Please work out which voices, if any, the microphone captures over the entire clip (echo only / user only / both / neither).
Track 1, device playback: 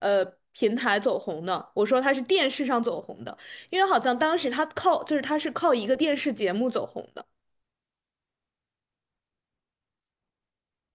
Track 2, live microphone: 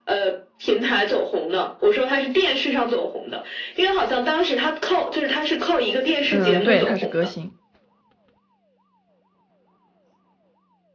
both